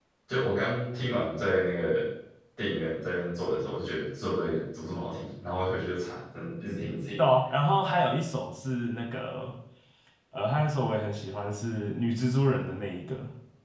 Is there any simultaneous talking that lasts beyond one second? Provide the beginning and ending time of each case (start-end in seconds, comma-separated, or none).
none